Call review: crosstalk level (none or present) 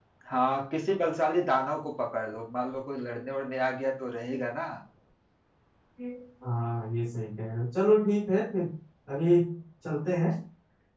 none